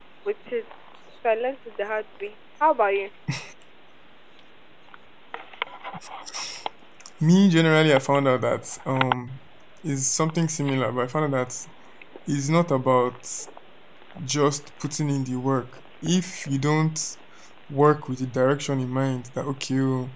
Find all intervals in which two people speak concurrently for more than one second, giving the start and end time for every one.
none

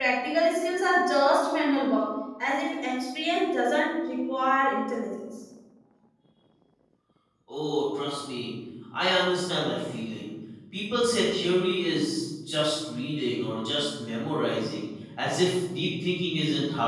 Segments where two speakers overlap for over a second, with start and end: none

